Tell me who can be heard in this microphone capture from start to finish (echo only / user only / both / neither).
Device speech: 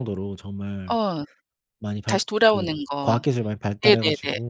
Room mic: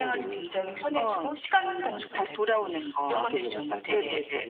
both